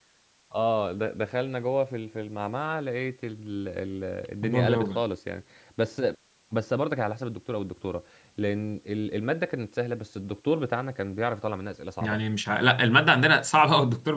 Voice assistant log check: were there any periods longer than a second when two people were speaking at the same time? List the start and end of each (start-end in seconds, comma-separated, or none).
none